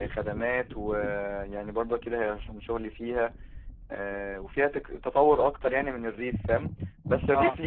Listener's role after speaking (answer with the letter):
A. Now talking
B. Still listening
B